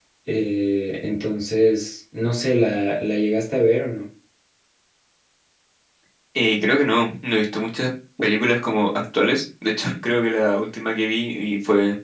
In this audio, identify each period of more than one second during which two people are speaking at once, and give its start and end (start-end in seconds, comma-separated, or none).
none